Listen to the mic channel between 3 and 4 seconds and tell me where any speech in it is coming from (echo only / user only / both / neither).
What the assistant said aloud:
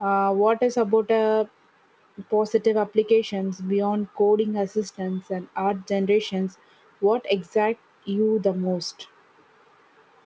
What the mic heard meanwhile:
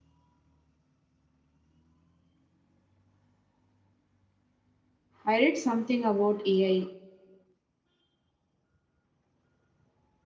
neither